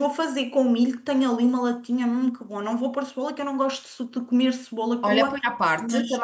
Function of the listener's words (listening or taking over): taking over